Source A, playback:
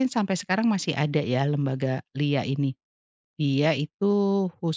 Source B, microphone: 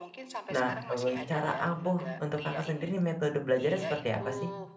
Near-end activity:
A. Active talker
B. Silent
A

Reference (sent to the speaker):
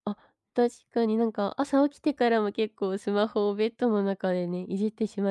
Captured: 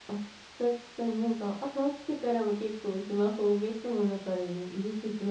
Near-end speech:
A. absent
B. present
A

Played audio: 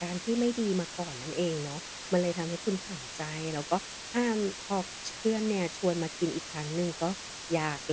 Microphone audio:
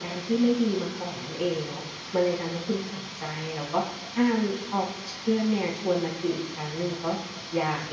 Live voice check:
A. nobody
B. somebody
A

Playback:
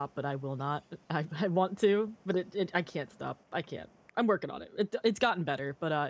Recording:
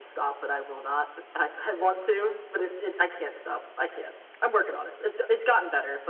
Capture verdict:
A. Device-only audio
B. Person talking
A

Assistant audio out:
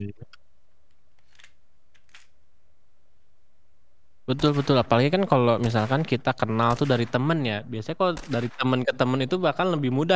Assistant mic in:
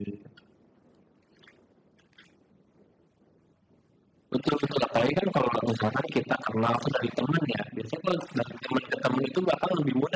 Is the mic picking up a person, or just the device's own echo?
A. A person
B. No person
B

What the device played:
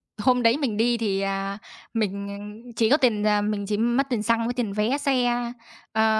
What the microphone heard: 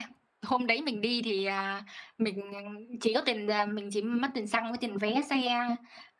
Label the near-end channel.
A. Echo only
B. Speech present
A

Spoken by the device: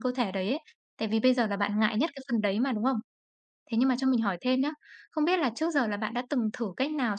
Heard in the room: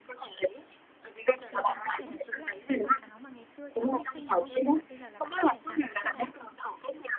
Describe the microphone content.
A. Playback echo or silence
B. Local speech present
B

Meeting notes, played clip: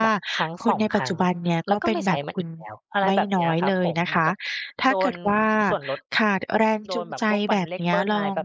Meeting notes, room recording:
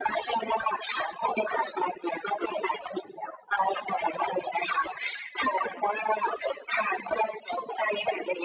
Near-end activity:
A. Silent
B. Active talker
A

